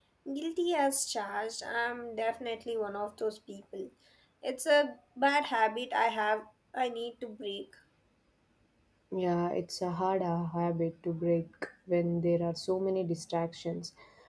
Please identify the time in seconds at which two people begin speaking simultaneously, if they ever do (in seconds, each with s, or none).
none